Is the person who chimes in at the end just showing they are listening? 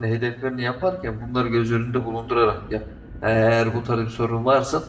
Yes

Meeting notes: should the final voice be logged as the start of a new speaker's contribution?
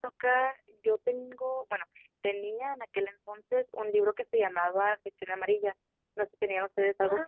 Yes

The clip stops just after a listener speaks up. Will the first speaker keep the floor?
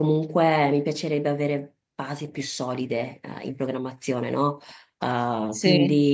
Yes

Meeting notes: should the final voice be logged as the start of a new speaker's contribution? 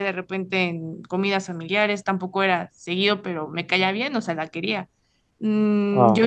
Yes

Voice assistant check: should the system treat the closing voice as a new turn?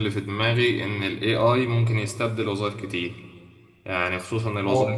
No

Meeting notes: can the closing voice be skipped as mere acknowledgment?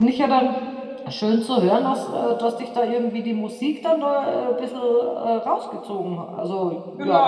No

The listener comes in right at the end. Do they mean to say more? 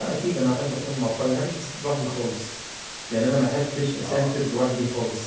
No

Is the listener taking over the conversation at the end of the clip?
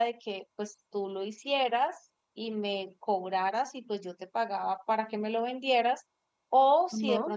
No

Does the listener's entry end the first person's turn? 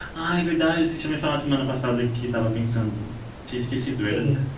Yes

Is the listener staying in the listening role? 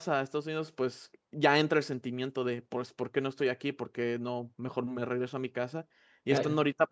Yes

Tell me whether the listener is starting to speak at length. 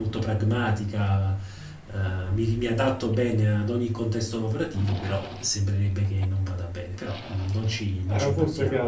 Yes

